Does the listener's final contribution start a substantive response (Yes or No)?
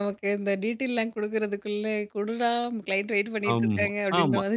Yes